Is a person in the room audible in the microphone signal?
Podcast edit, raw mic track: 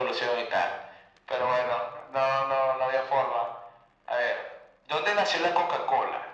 No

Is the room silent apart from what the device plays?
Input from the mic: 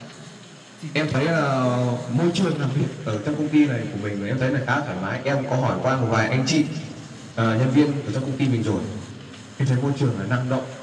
No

